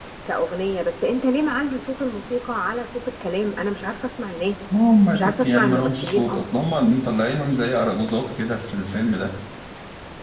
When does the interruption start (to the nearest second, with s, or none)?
5 s